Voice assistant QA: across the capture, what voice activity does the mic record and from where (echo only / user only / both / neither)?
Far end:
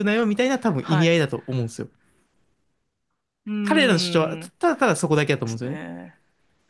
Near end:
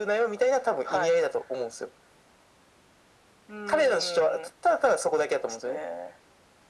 echo only